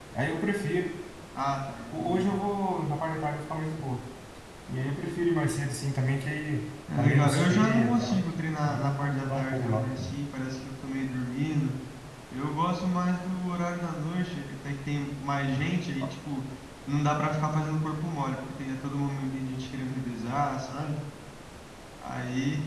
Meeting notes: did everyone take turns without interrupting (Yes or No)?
No